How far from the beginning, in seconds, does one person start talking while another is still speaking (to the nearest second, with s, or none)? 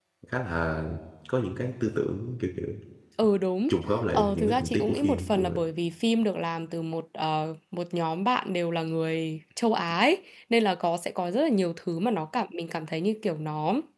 4 s